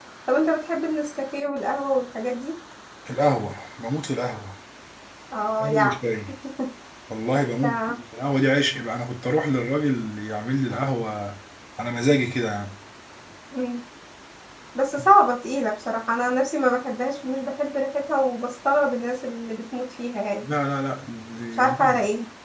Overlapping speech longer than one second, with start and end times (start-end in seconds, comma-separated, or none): none